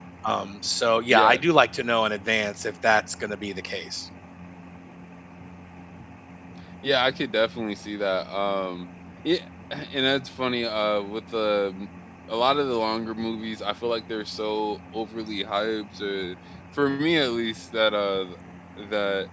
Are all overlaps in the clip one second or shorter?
Yes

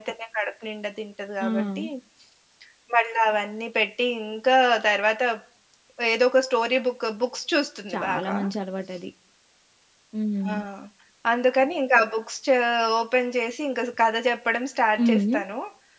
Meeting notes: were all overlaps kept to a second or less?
Yes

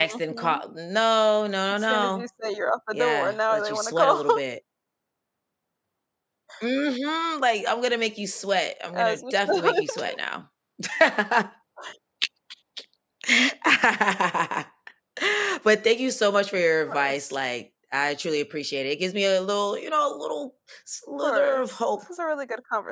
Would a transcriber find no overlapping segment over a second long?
No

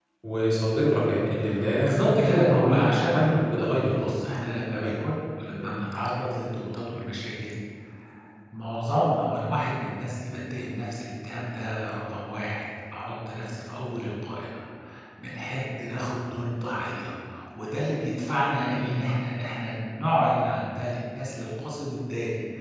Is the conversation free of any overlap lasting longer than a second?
No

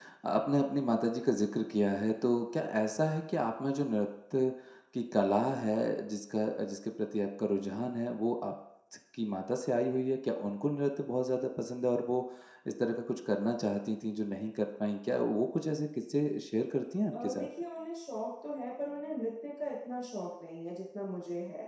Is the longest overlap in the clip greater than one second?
No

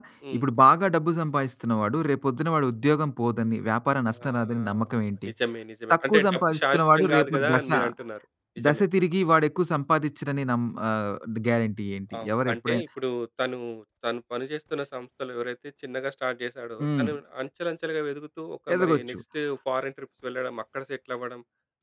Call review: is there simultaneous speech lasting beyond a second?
Yes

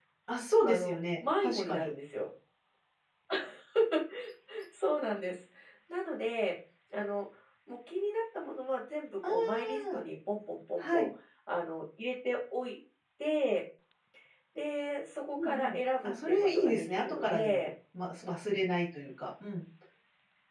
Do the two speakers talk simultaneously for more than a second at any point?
Yes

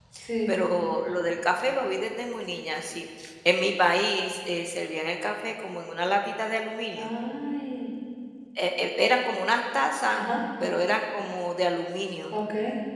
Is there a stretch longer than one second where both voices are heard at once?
No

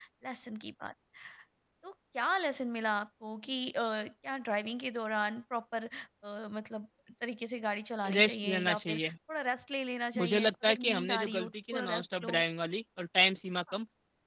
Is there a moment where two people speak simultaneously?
Yes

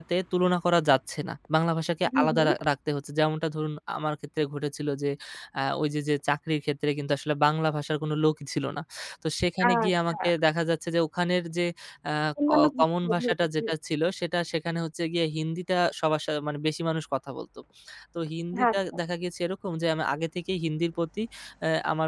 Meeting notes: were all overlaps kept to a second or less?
No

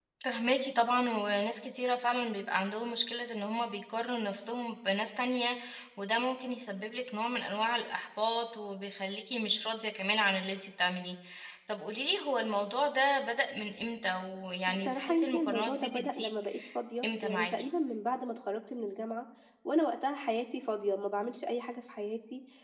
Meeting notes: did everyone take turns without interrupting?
No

